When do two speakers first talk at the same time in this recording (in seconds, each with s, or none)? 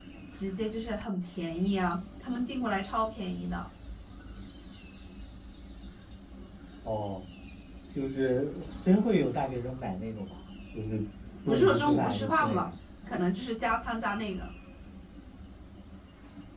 11.2 s